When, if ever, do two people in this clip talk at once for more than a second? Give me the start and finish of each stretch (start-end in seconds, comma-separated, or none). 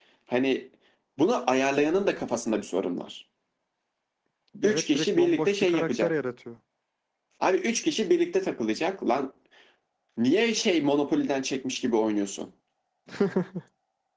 4.6-6.1